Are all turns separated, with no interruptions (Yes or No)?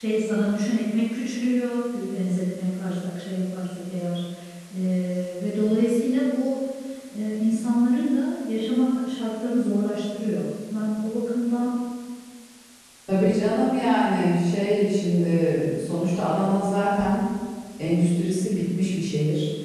Yes